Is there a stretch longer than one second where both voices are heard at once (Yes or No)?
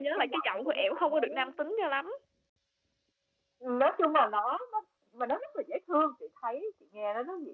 Yes